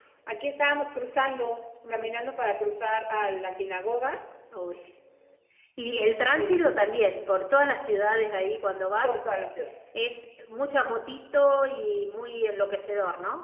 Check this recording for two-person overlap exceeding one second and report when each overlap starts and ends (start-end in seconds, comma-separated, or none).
none